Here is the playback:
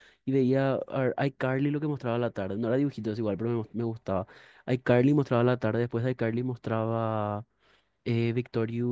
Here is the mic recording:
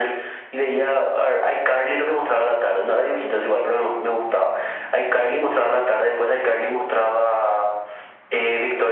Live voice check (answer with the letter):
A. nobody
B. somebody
A